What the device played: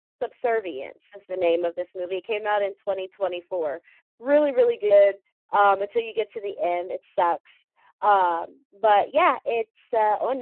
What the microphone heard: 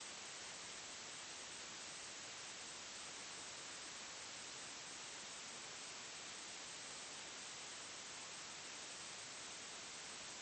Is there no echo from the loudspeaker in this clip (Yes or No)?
Yes